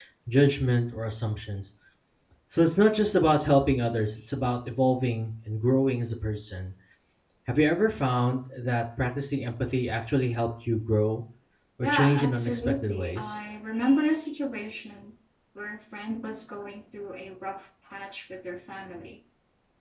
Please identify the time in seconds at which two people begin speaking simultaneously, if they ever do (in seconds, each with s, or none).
11.8 s